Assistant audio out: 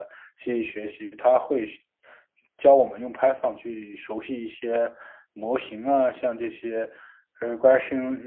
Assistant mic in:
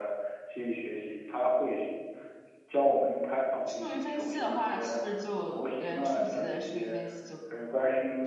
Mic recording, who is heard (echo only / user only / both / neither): both